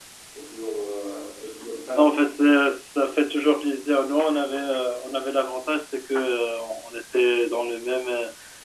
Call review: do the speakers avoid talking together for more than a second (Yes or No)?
Yes